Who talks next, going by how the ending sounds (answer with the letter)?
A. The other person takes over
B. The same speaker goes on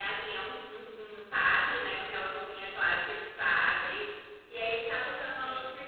B